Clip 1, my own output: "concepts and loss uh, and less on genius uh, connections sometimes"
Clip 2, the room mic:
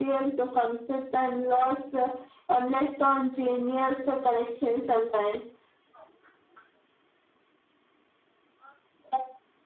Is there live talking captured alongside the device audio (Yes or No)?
No